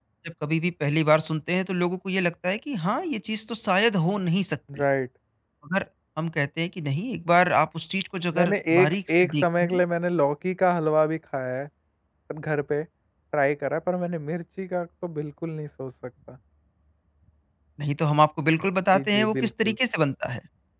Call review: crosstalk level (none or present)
present